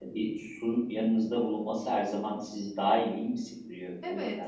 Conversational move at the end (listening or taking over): taking over